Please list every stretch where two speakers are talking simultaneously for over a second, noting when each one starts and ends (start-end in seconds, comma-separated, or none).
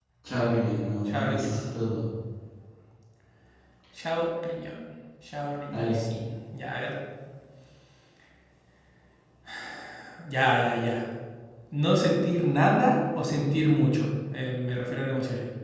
none